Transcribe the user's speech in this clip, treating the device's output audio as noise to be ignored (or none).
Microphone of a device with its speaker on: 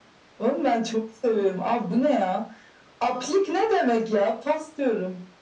none